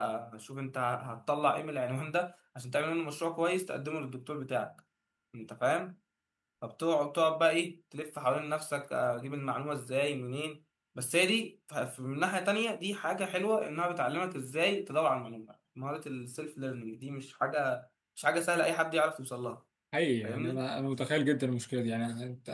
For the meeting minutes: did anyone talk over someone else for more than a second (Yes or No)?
No